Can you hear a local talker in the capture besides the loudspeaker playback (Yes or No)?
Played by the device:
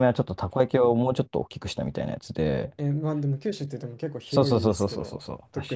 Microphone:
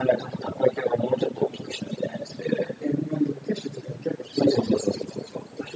No